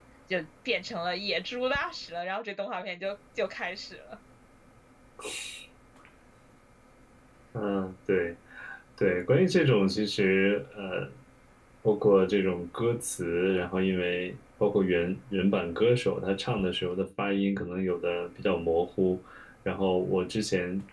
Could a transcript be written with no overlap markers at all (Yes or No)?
Yes